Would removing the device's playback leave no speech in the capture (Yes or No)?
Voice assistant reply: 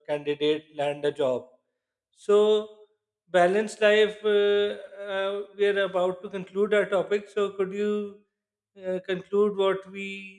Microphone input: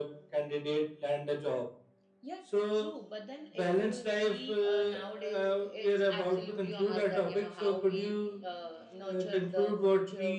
No